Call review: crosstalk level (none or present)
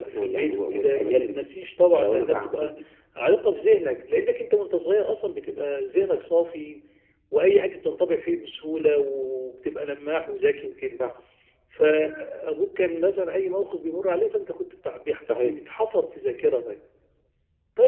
present